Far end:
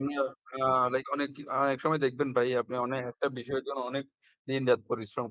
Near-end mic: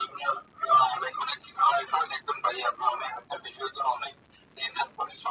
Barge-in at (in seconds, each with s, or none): none